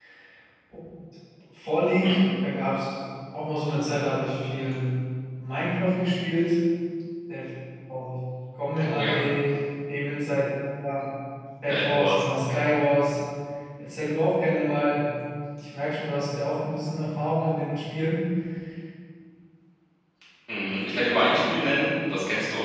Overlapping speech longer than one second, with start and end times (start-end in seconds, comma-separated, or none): none